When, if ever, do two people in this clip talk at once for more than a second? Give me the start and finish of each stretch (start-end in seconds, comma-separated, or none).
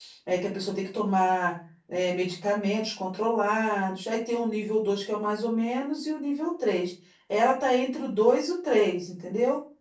none